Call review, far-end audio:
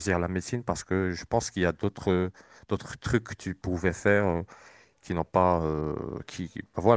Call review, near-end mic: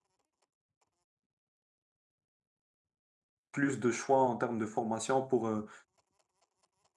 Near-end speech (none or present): present